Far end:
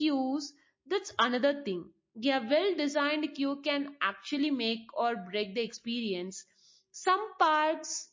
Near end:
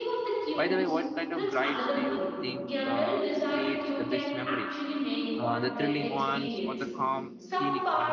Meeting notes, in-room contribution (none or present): present